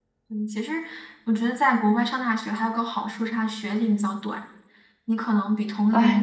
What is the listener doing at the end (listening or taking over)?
taking over